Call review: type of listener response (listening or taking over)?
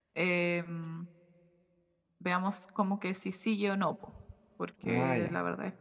listening